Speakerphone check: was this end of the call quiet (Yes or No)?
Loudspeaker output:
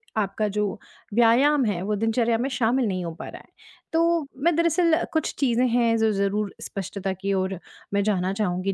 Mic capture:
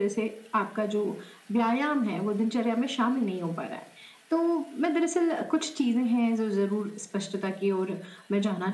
Yes